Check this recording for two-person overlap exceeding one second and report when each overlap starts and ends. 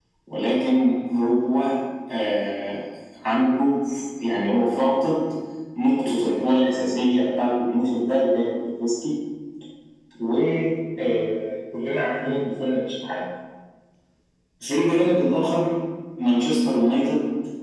none

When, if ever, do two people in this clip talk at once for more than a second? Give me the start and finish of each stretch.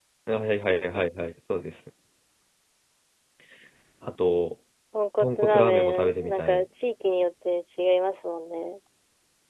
5.2-6.6

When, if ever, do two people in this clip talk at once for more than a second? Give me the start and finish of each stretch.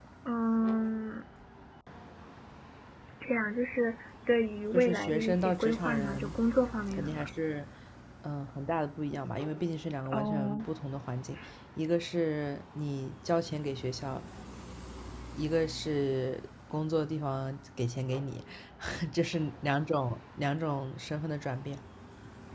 4.7-6.3

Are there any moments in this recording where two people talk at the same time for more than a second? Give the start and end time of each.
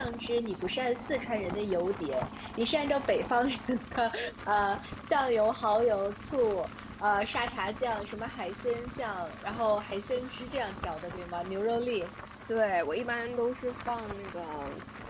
none

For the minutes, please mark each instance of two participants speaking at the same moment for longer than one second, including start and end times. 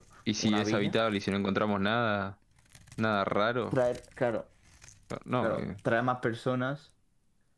none

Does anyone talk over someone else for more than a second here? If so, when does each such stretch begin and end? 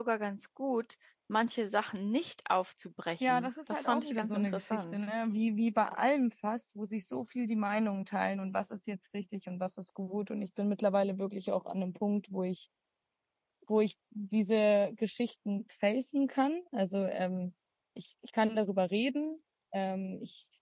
3.2-5.0

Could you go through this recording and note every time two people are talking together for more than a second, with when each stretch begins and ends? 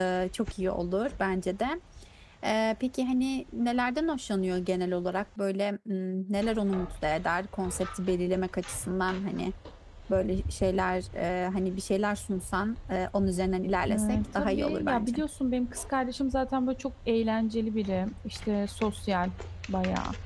13.9-15.1

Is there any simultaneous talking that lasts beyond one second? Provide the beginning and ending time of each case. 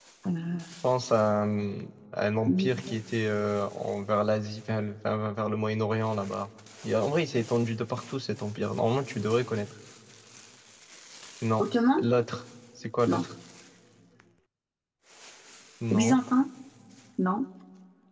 none

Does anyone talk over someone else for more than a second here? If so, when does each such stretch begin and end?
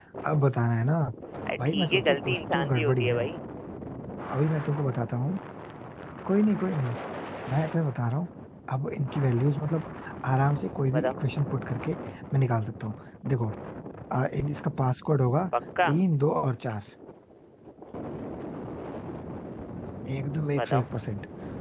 1.6-3.2

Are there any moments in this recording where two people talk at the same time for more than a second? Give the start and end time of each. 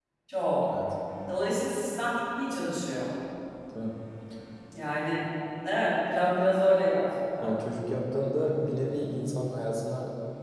none

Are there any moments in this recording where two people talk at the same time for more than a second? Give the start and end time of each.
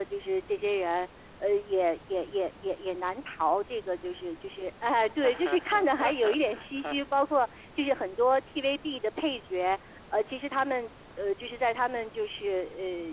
5.2-7.0

